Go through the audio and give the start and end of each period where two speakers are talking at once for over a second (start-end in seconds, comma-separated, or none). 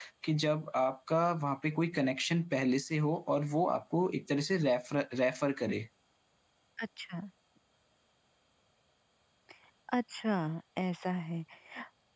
none